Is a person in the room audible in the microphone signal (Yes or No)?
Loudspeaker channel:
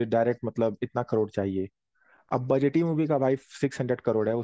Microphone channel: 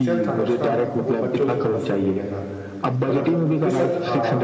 Yes